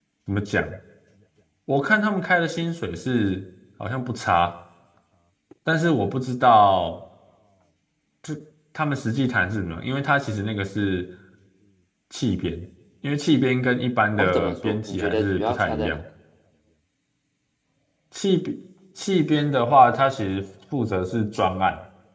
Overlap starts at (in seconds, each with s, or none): 14.2 s